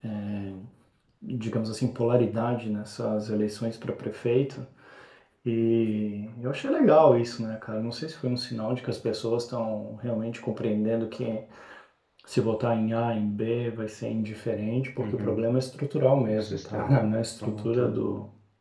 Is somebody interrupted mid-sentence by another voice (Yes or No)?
Yes